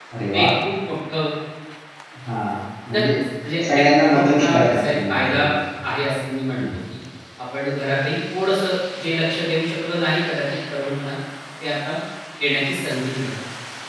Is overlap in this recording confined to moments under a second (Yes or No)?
No